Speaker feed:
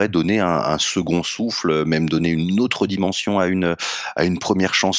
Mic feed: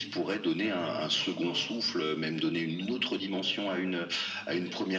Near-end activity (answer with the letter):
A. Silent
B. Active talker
B